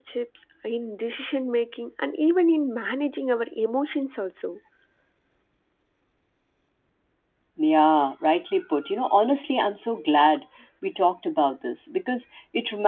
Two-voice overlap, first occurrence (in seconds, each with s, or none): none